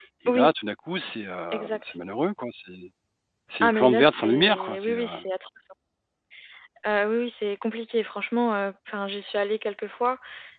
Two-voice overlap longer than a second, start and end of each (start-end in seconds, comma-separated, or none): 3.6-5.0